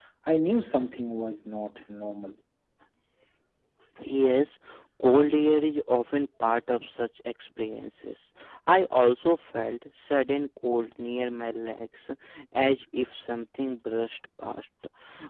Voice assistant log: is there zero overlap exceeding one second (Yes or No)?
Yes